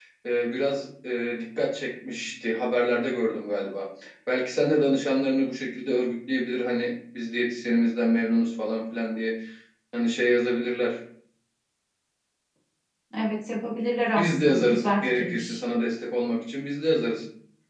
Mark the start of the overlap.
14.2 s

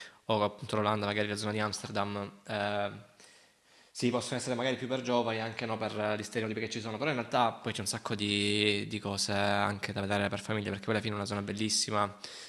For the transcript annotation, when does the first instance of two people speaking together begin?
none

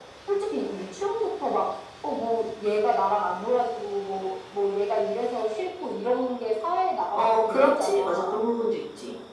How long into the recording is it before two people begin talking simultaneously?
7.1 s

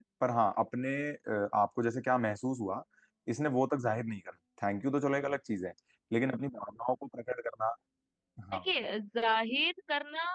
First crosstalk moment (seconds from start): none

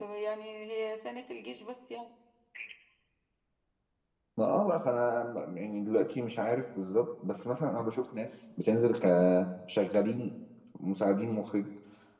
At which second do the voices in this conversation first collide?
none

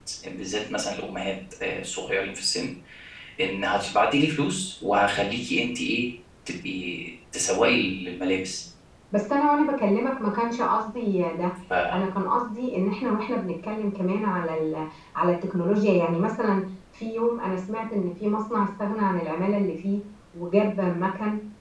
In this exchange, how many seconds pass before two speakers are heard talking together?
none

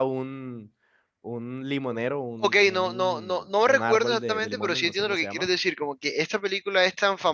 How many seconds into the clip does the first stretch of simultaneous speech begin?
2.4 s

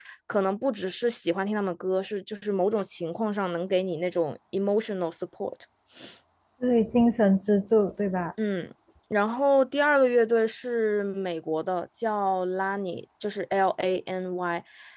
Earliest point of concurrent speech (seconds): none

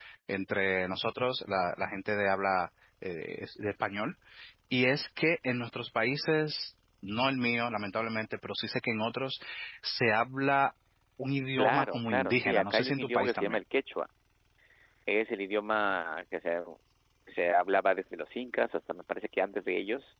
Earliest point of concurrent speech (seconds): 11.6 s

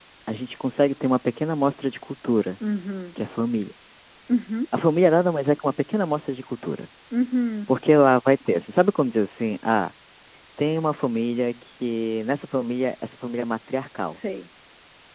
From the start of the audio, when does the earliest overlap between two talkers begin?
none

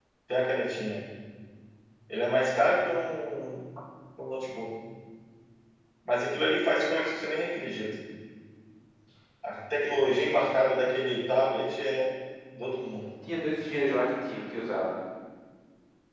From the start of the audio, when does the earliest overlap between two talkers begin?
none

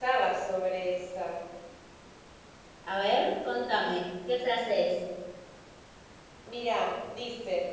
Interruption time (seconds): none

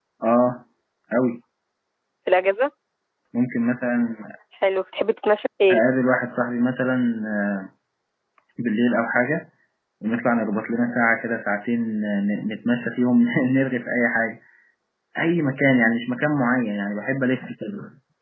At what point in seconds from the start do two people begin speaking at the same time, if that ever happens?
none

